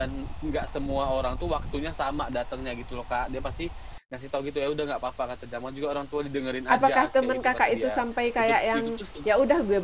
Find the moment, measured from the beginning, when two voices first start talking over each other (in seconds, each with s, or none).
6.7 s